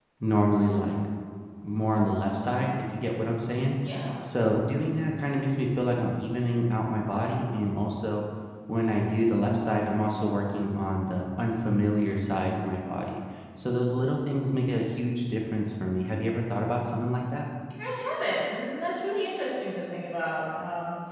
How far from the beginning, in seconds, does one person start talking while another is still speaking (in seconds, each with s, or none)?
none